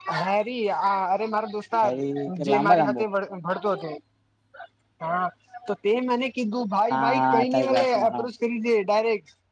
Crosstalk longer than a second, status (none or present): present